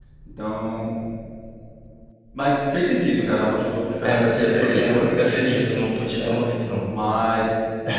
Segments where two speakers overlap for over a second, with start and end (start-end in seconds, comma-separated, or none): 4.0-5.6